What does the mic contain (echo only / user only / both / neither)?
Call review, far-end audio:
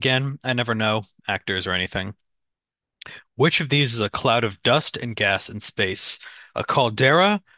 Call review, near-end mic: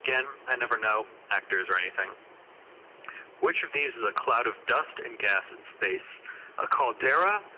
echo only